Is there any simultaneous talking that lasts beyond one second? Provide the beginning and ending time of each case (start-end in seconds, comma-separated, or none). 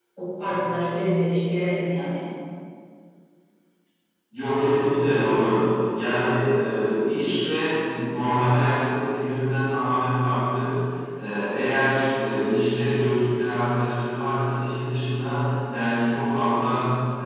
none